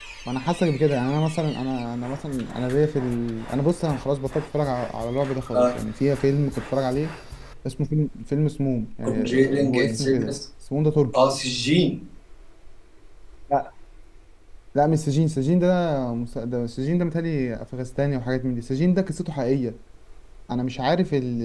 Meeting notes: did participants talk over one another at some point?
Yes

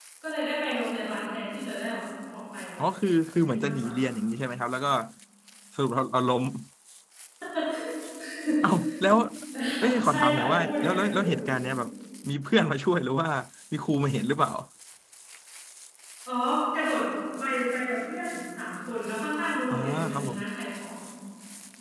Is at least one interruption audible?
Yes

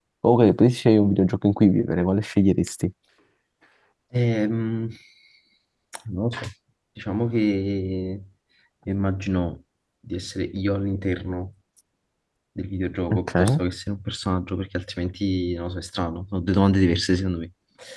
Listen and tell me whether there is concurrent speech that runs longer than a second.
No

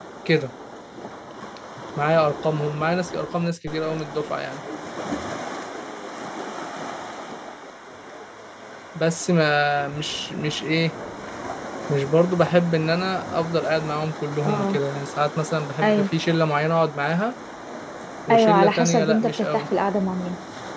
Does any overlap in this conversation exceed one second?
Yes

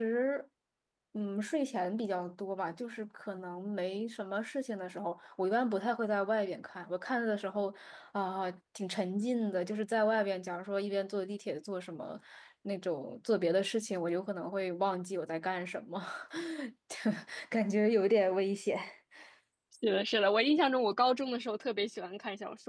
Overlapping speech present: No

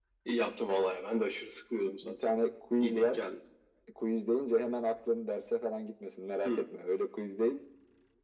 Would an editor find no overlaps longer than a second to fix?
Yes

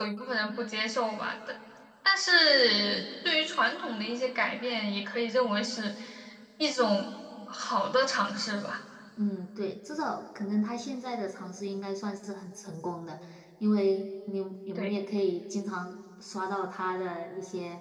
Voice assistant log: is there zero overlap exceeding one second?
Yes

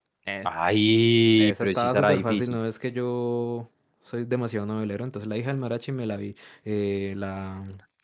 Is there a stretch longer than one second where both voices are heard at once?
Yes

